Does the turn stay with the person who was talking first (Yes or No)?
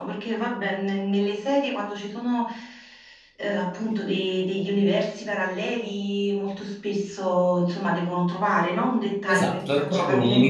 No